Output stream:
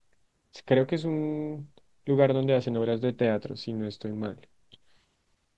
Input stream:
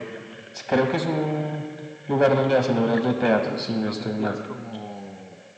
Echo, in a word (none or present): present